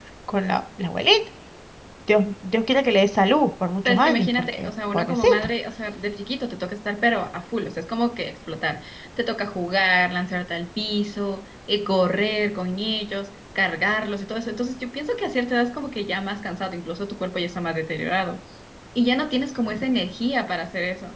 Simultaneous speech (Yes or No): Yes